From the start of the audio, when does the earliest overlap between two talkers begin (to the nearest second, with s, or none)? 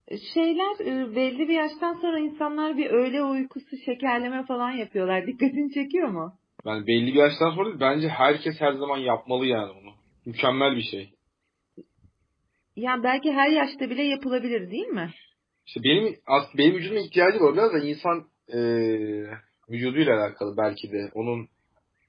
none